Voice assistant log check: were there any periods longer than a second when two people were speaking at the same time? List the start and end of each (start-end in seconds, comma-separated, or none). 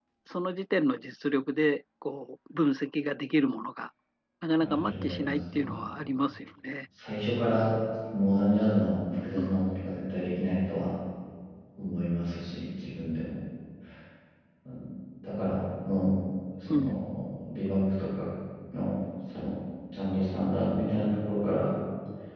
4.6-5.8